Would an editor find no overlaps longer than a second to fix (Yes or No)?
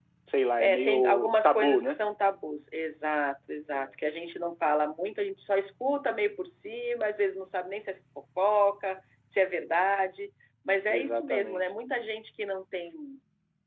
No